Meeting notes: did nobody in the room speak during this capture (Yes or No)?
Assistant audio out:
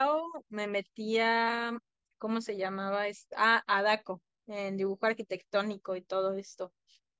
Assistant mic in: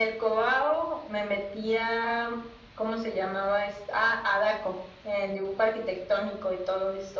Yes